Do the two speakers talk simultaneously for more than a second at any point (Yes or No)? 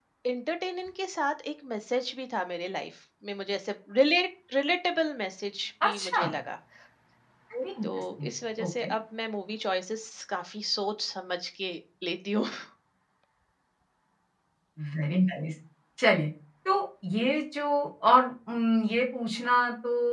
No